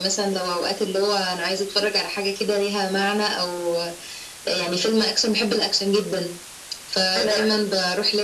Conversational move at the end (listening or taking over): listening